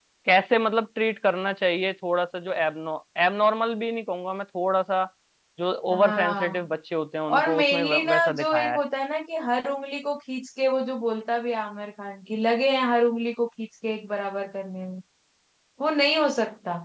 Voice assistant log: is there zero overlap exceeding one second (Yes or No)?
No